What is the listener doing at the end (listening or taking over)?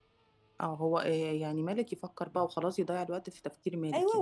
taking over